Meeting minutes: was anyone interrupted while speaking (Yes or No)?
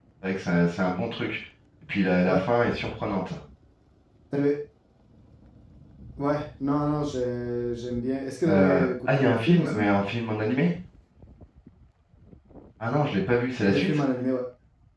Yes